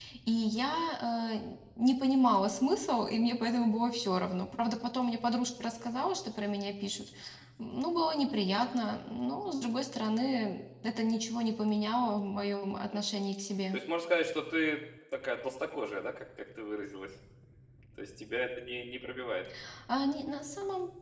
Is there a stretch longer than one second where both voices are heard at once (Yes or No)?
No